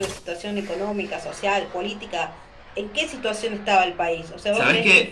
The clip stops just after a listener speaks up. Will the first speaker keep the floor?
Yes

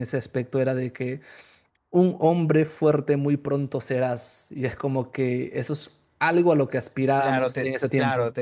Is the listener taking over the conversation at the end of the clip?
Yes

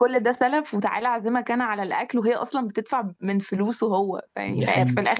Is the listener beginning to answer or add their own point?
No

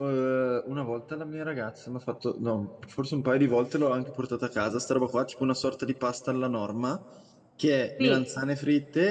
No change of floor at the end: Yes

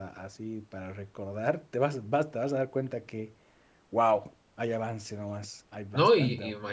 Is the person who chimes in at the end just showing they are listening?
No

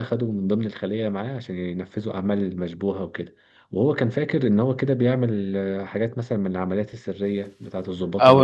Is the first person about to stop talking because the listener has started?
Yes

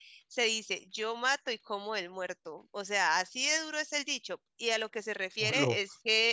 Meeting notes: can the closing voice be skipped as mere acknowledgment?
Yes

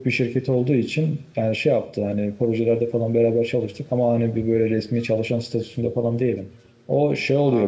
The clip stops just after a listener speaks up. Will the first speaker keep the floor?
Yes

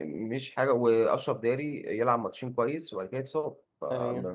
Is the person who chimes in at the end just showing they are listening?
Yes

